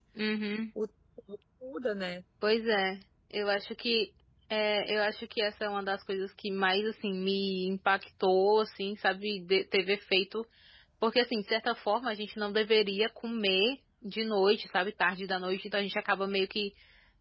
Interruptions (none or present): none